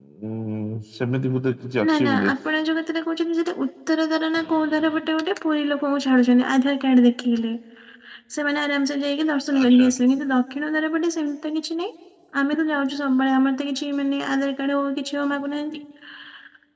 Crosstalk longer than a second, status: none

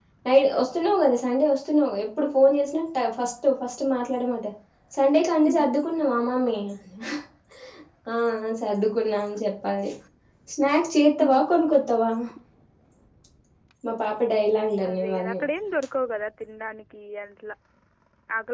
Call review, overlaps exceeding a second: none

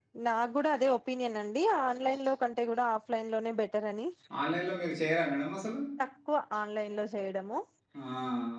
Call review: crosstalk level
none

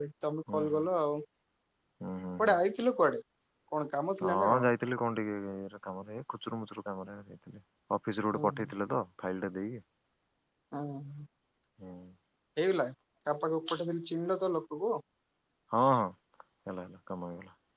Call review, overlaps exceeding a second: none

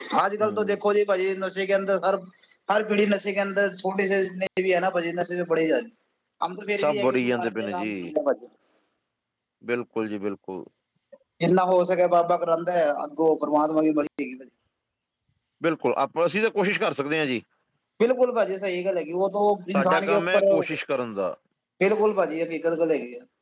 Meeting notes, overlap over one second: present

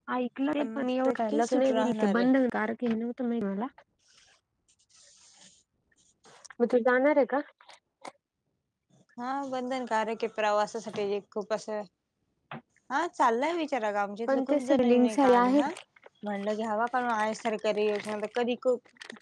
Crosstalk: present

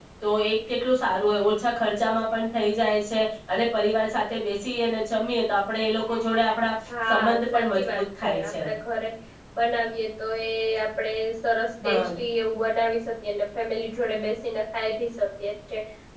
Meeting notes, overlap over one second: present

